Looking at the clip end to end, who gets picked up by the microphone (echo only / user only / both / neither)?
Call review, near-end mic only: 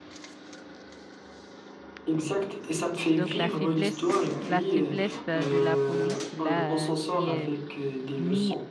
both